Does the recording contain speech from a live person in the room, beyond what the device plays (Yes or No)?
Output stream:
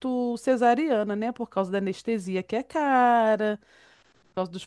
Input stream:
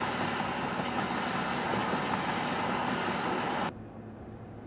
No